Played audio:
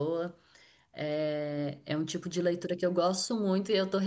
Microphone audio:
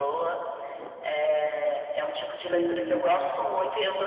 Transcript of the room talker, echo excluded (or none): eu,